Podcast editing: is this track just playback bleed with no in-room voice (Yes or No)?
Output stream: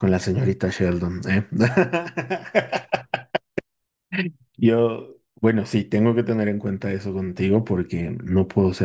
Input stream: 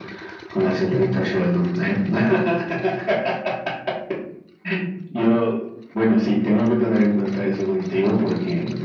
Yes